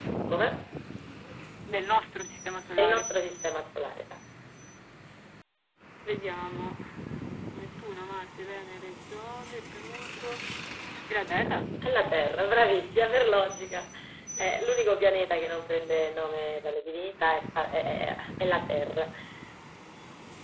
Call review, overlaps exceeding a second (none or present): none